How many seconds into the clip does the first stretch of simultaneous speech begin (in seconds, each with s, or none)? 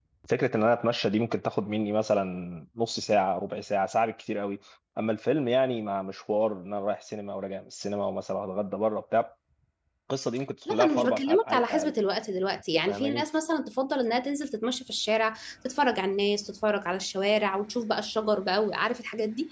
10.7 s